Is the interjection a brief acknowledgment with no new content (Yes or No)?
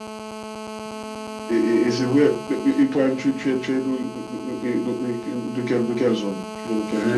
No